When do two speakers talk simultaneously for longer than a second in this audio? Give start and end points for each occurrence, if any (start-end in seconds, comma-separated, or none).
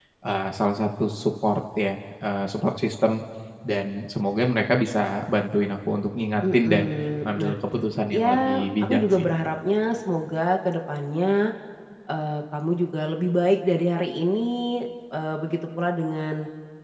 8.1-9.3